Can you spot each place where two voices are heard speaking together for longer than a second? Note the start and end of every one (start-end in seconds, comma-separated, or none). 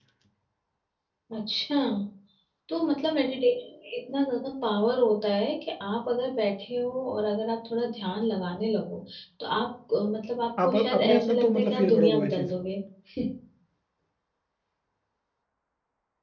10.6-12.5